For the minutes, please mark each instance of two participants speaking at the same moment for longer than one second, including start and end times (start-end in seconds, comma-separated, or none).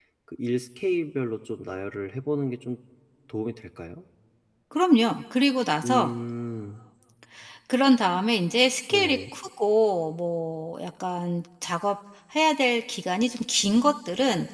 none